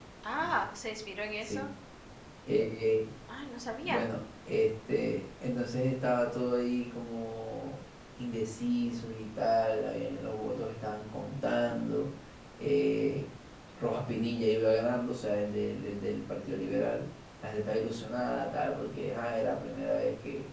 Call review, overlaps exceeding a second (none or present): none